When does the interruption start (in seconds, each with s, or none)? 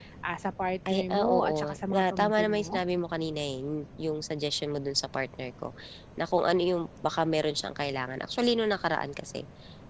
0.9 s